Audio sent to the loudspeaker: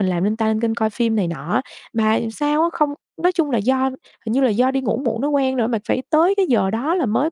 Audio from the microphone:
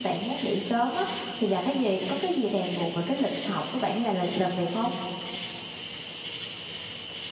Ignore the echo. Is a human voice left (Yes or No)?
Yes